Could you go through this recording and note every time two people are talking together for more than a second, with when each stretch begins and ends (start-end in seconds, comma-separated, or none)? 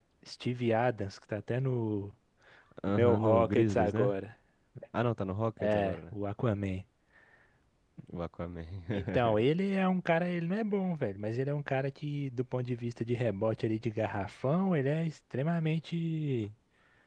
2.9-4.1